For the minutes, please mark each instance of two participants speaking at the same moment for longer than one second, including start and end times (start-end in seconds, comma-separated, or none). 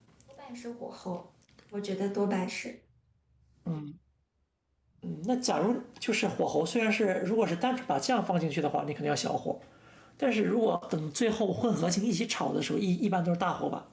none